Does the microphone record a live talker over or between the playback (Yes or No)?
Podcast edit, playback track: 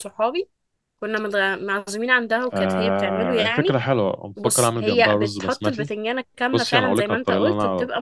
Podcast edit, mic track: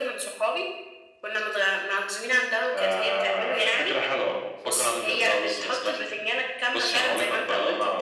No